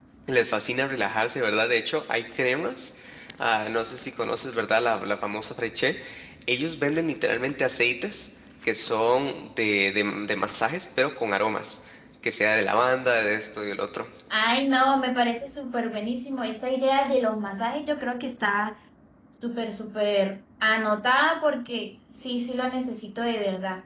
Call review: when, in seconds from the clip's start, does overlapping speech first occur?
none

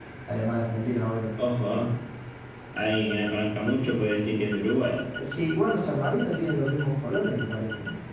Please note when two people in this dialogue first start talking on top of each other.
none

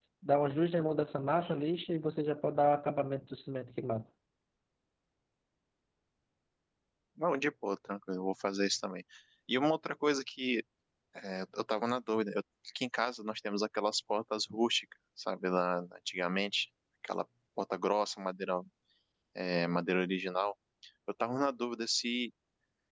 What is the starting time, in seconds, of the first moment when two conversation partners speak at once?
none

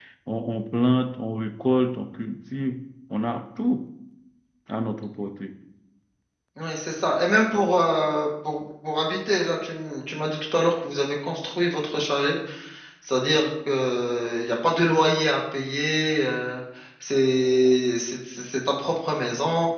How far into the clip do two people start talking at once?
none

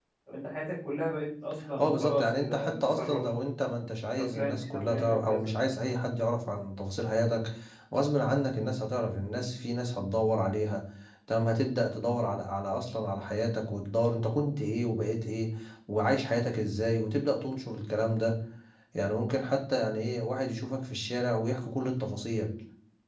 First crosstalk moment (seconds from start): 1.8 s

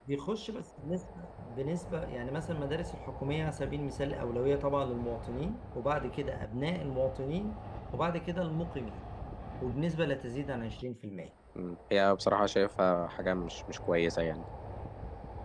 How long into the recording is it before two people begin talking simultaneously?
none

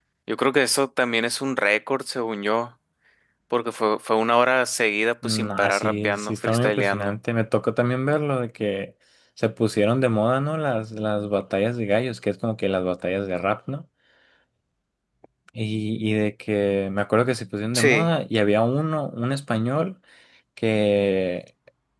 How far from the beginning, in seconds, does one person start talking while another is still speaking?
5.2 s

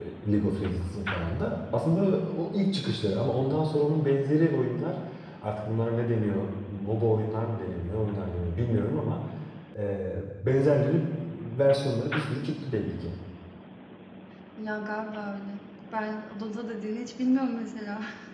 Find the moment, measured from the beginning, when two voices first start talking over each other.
none

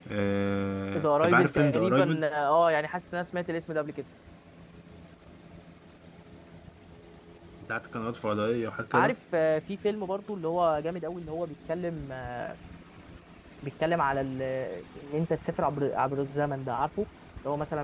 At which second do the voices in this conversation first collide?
1.0 s

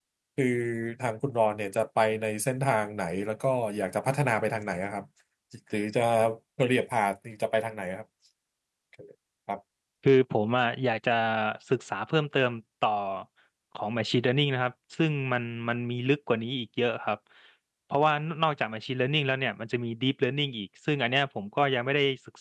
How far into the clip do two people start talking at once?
none

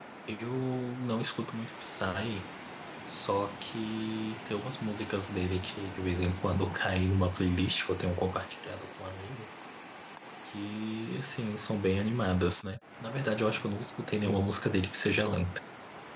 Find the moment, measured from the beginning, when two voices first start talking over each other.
none

